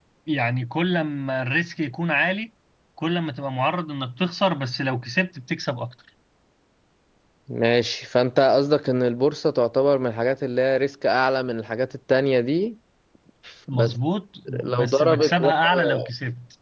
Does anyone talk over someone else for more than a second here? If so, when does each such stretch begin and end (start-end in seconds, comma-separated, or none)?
14.5-16.1